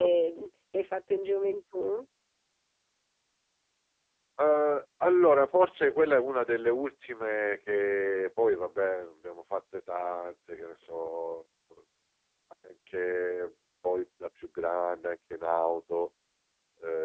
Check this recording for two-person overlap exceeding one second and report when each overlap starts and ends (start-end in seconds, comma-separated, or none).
none